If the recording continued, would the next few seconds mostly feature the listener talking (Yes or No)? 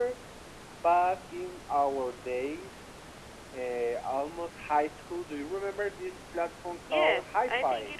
Yes